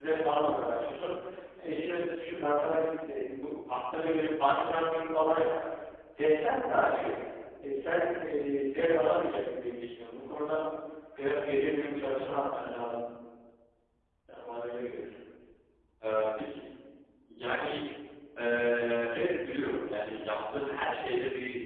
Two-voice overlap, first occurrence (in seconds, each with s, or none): none